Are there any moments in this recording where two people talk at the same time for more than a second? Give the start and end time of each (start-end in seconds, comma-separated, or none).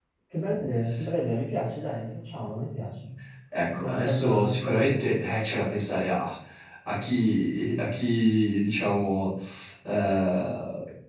3.7-5.0